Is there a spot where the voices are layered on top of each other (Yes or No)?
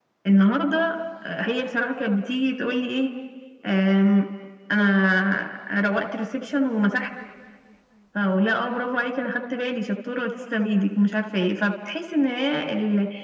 No